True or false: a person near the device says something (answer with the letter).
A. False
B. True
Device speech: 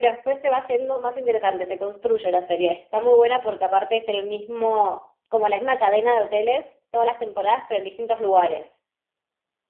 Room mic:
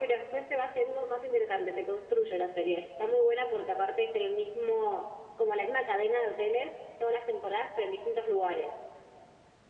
A